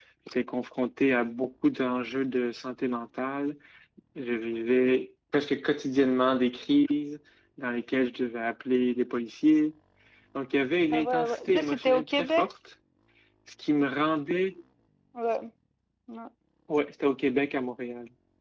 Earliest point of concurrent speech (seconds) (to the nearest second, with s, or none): 11 s